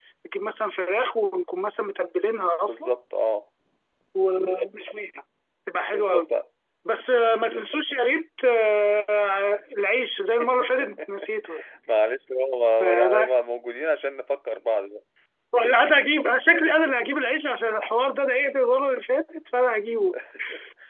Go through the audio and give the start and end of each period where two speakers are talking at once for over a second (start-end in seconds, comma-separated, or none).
none